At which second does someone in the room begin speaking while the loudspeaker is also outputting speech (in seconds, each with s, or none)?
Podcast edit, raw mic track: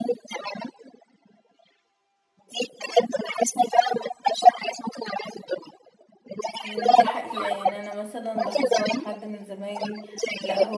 6.6 s